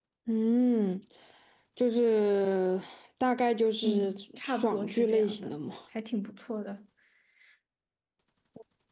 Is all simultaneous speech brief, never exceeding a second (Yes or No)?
No